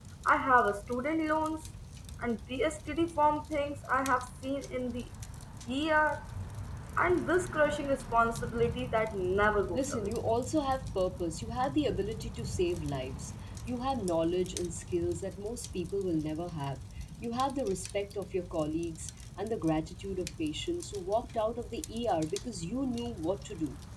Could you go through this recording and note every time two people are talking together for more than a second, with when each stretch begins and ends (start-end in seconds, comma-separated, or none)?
none